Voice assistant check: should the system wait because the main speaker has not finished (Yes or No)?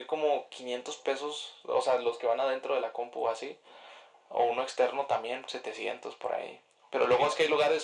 Yes